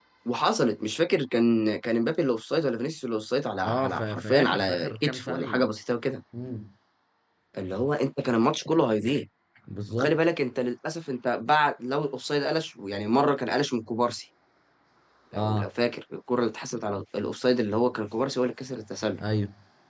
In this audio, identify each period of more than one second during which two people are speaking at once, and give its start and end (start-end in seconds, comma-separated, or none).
3.6-5.7